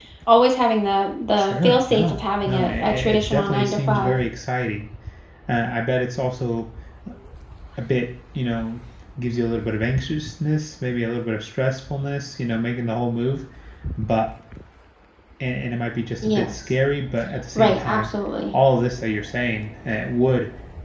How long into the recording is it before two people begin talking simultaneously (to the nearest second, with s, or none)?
1 s